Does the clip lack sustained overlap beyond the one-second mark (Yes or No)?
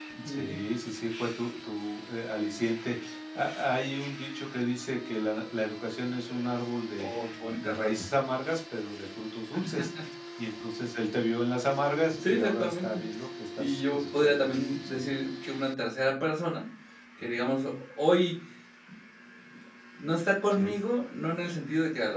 No